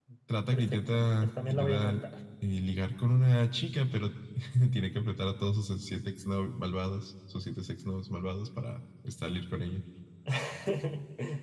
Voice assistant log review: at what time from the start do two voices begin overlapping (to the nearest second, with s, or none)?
1 s